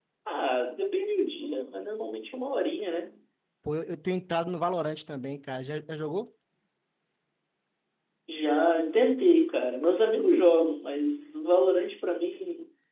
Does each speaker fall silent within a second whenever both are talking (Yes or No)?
Yes